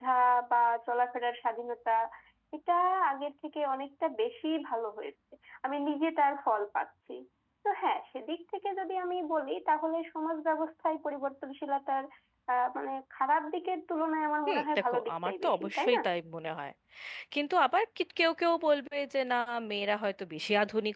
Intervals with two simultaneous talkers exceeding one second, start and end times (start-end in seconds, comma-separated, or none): 14.5-16.0